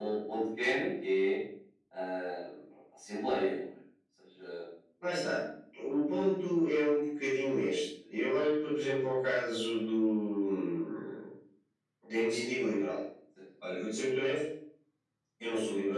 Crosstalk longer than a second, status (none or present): none